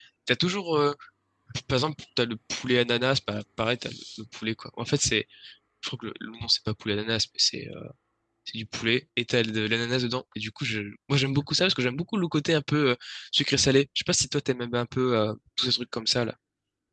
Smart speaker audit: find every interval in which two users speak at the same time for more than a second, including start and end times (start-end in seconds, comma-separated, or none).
none